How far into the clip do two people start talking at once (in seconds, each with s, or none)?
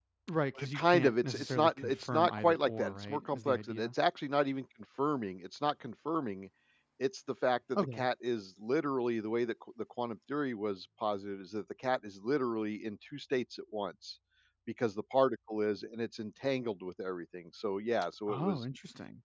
0.6 s